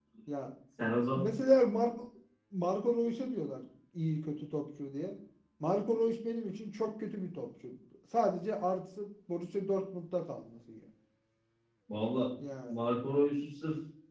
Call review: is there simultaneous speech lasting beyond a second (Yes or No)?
No